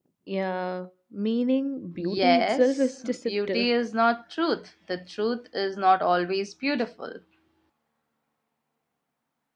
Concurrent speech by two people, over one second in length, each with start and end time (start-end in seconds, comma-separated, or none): 2.0-3.7